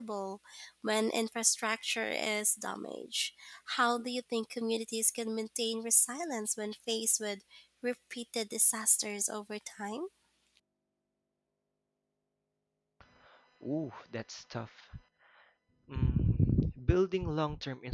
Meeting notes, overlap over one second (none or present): none